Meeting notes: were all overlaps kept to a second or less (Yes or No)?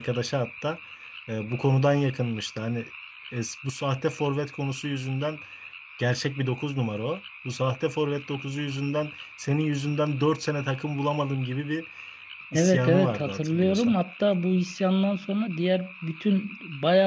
No